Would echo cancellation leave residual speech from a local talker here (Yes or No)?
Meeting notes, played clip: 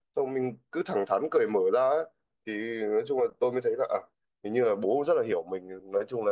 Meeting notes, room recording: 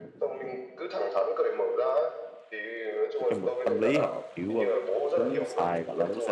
Yes